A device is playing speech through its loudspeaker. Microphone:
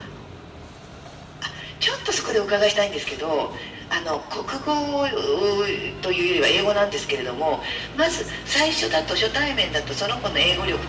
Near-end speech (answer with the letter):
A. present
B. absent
B